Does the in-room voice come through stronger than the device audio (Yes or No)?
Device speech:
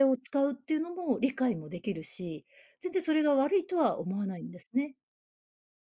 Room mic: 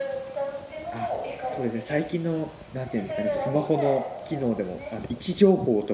Yes